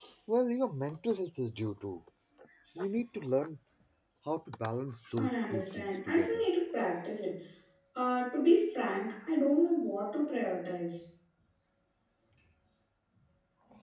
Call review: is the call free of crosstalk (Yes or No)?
No